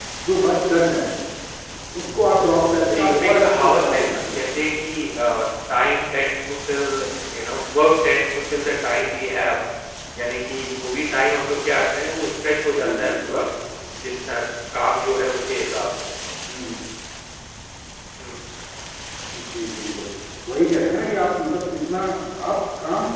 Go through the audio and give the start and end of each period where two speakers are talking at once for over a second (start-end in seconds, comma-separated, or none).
3.0-4.7